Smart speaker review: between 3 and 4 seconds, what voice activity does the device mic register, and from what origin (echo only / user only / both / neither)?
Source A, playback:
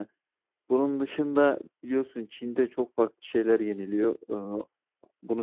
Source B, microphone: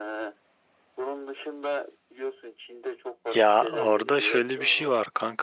both